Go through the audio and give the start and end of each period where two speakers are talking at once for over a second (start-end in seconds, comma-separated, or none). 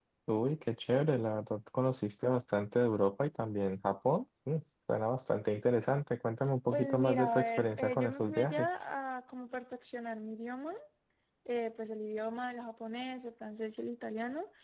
6.7-8.7